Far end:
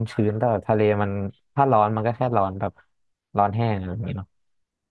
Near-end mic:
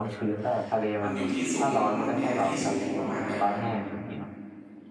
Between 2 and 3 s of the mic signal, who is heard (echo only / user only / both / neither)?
both